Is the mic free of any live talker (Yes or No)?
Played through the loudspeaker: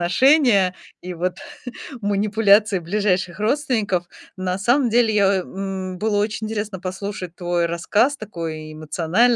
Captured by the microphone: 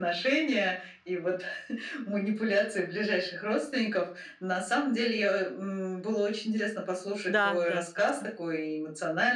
No